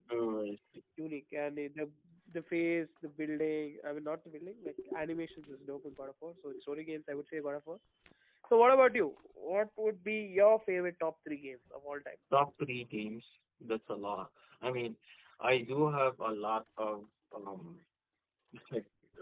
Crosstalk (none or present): none